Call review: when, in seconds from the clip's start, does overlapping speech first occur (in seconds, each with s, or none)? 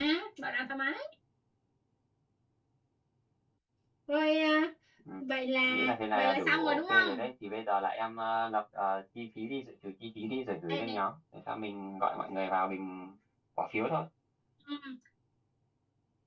5.6 s